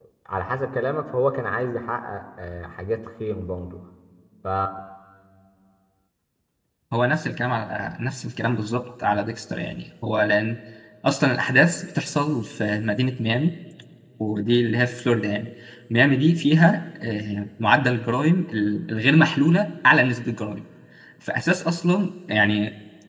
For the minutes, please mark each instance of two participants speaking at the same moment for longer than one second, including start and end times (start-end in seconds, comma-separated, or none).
none